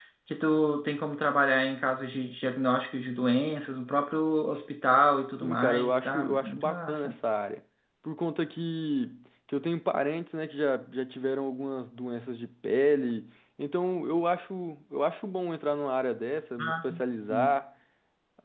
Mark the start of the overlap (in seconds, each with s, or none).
5.4 s